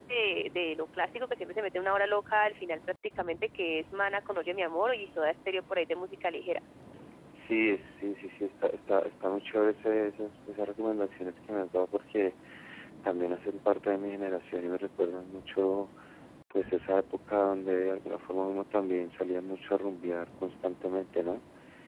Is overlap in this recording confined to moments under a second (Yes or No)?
Yes